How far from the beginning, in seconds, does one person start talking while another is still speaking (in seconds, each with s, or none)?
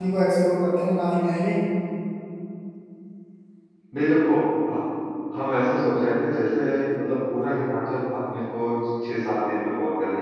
none